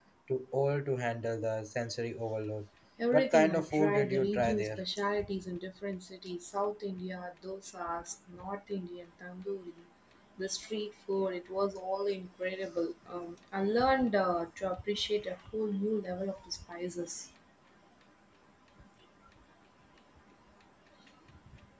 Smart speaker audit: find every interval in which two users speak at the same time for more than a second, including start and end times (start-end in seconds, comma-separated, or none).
3.1-4.8